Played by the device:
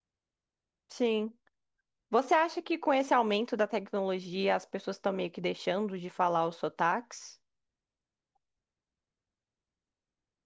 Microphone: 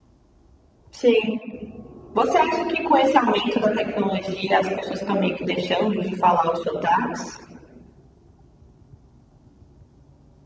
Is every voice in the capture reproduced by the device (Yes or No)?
Yes